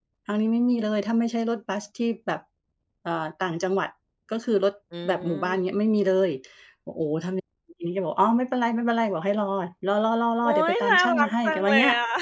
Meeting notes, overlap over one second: present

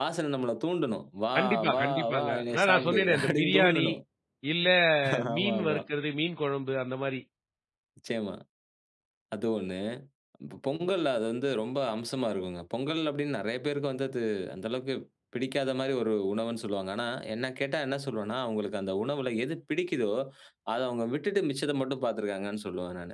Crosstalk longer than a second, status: present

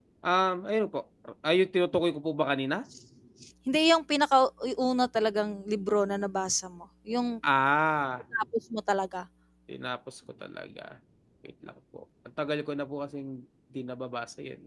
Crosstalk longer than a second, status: none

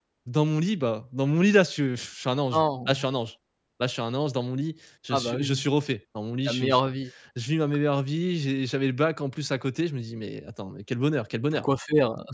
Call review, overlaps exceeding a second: none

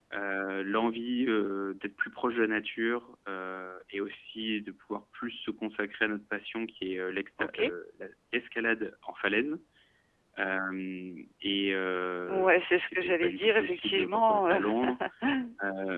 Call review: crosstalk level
present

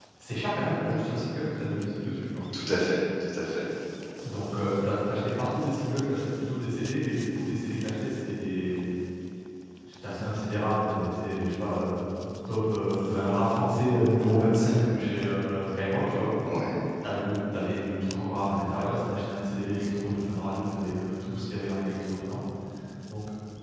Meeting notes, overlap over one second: none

